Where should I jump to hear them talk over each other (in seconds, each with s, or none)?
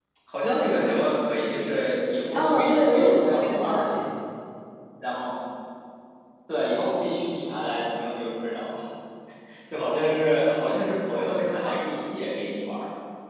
2.3 s